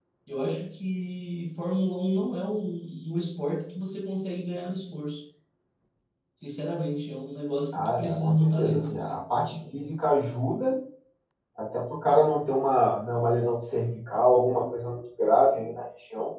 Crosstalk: present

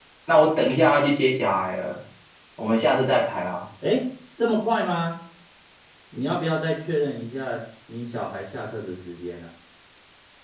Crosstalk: none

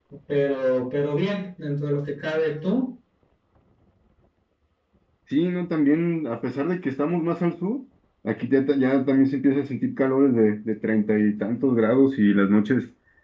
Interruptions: none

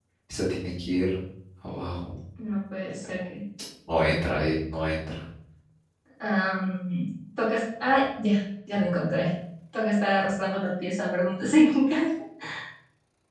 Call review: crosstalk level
none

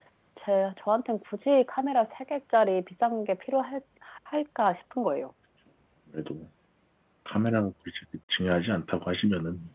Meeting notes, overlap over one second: none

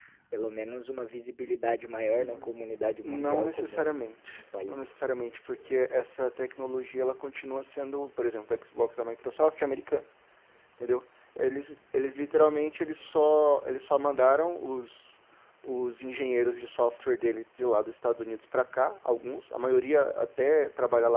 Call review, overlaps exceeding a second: present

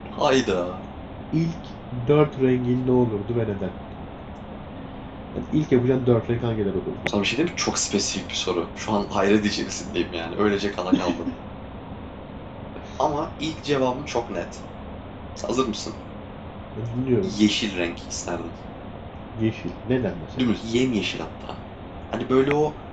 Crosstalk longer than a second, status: none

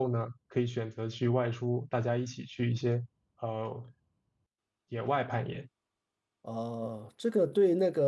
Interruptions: none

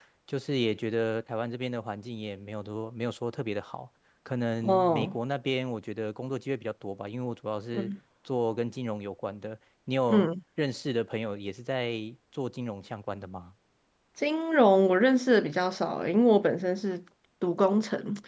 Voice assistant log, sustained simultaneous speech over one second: none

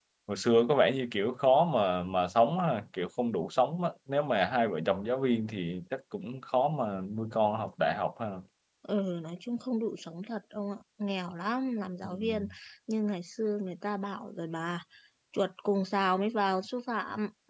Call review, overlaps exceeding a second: none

